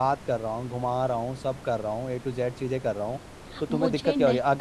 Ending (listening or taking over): taking over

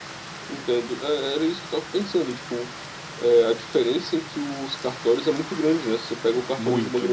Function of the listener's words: listening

